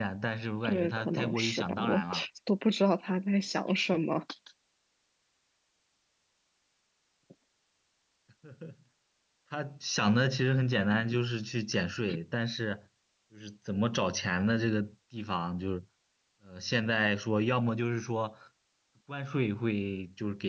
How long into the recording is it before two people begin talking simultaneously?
0.7 s

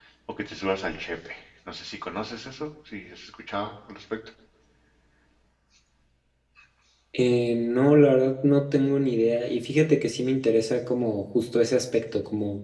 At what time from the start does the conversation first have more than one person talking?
none

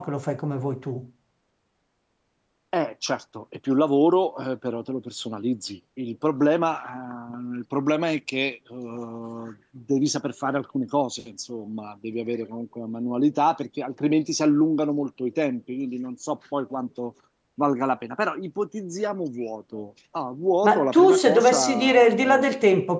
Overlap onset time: 20.6 s

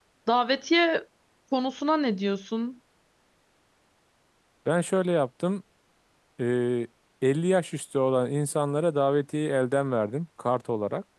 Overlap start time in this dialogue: none

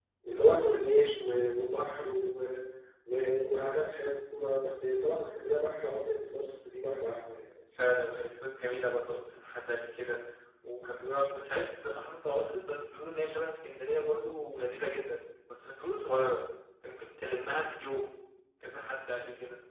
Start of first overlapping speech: none

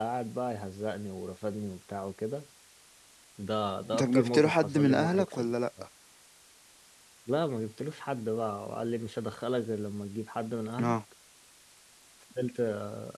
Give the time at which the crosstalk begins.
4.0 s

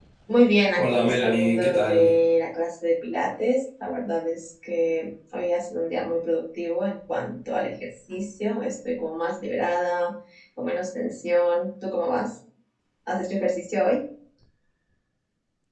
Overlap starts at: 0.7 s

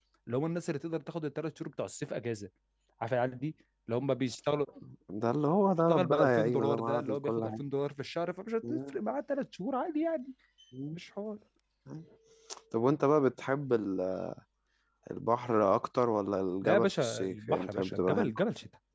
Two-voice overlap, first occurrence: 5.9 s

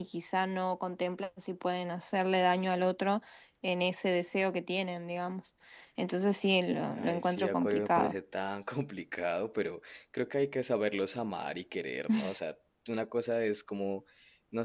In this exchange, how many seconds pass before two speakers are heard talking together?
6.9 s

